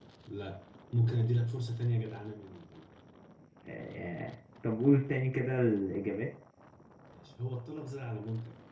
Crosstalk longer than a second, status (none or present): none